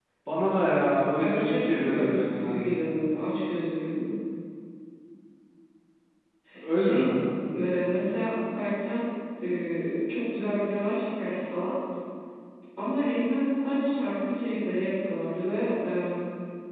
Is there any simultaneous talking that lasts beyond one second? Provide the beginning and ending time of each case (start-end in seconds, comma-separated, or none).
1.2-2.6